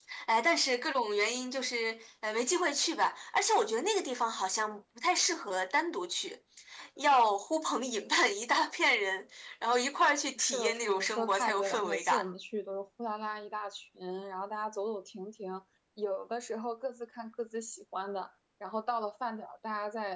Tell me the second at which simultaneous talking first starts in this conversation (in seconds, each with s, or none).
10.4 s